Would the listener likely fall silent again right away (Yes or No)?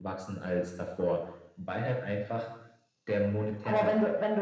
No